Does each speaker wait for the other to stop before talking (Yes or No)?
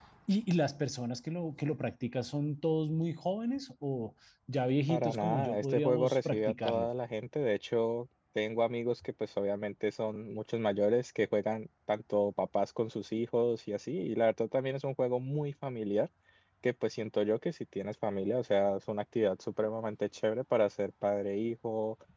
No